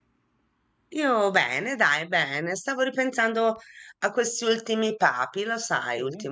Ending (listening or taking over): taking over